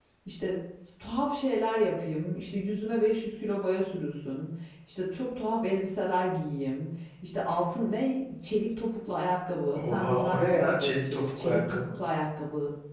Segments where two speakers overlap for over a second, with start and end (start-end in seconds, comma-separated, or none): 9.7-11.8